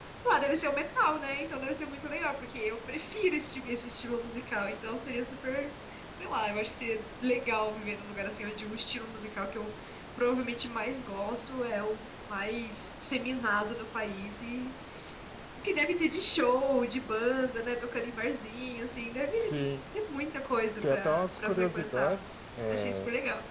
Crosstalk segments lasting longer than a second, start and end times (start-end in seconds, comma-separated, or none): 20.9-22.2